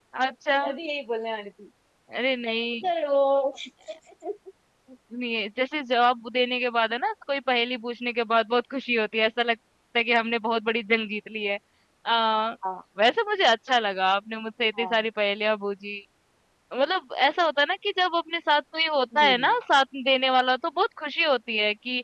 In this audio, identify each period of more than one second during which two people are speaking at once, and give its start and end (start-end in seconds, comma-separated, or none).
none